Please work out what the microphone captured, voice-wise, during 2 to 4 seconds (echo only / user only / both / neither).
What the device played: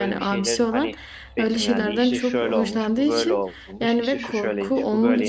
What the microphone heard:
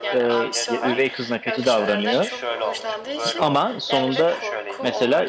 both